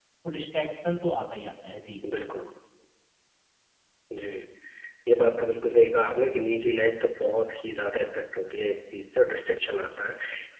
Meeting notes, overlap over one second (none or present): none